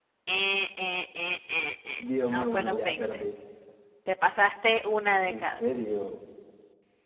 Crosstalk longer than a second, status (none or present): present